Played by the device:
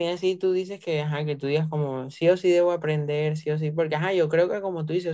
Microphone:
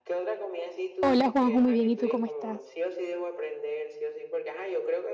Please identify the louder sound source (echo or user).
user